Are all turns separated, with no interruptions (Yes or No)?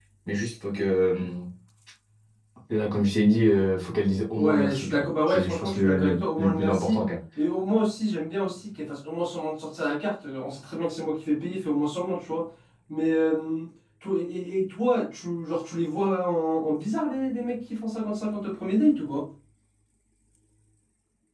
No